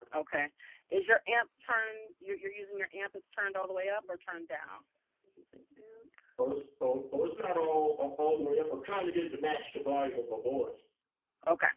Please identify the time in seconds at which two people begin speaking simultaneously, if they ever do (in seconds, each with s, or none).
none